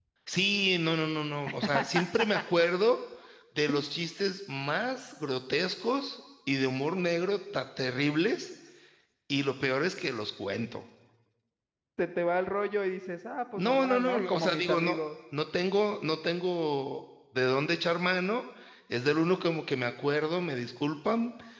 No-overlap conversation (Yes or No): No